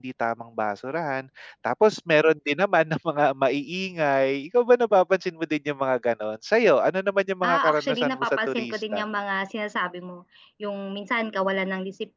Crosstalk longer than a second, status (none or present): present